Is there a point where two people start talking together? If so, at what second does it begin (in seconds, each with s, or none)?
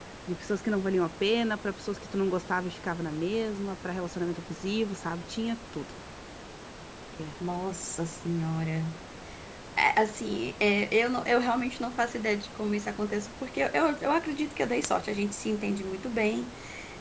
none